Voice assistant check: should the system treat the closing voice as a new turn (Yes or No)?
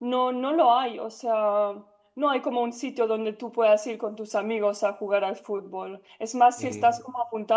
No